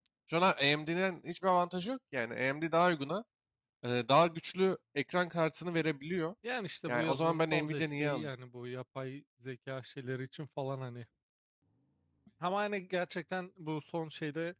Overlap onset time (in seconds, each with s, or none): 6.9 s